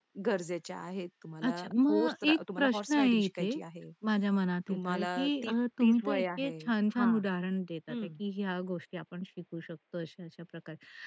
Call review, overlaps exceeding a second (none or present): present